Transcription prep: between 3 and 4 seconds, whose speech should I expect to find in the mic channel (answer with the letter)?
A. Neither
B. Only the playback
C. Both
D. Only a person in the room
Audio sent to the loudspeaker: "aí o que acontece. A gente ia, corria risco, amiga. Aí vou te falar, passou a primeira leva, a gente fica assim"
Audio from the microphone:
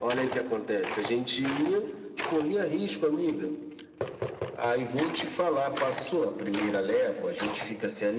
B